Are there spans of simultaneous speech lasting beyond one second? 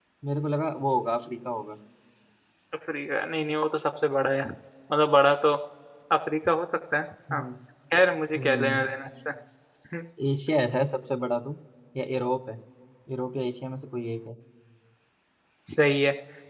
No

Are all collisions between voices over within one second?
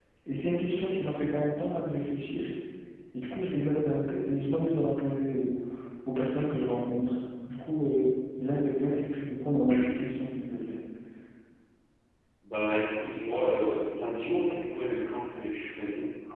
Yes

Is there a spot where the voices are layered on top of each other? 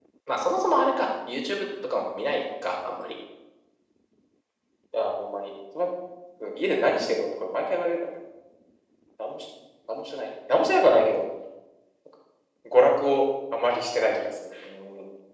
No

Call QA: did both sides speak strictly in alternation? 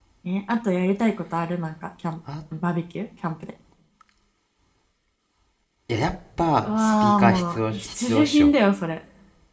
No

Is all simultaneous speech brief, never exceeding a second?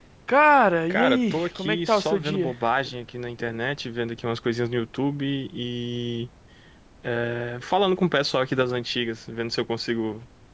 No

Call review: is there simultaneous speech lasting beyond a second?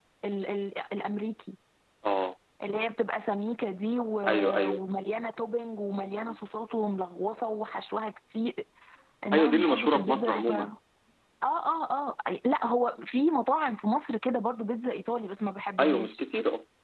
Yes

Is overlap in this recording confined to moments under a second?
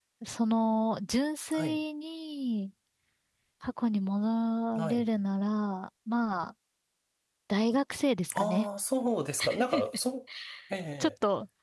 Yes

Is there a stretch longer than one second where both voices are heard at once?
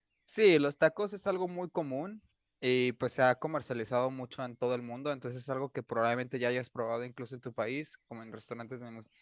No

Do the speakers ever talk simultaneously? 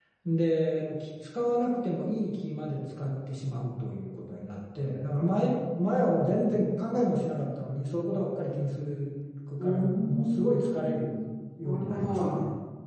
Yes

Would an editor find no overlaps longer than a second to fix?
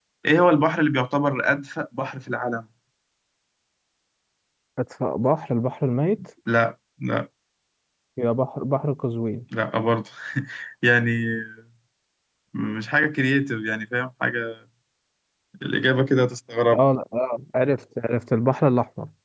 Yes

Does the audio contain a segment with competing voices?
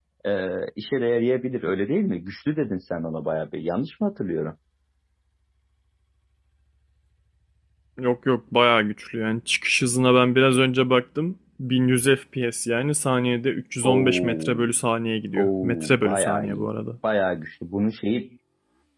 Yes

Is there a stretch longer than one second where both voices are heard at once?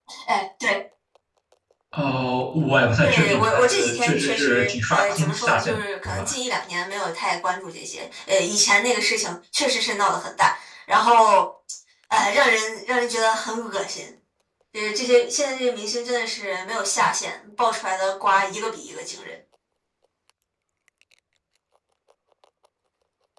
Yes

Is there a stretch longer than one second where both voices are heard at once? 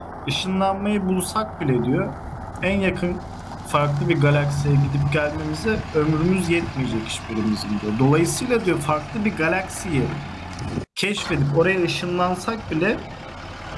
No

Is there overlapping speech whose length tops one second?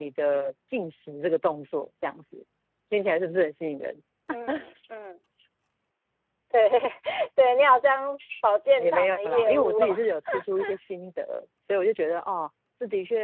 Yes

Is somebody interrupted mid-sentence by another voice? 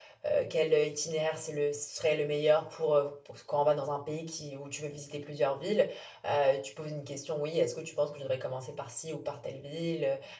No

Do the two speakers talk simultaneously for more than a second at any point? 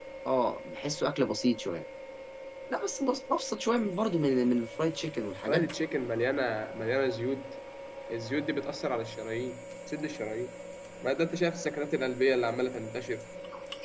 No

